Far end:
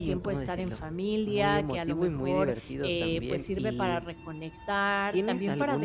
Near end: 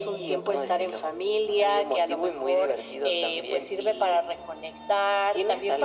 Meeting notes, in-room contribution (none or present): none